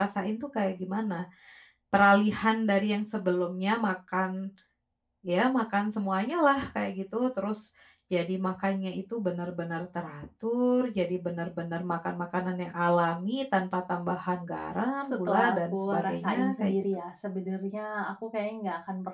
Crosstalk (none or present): present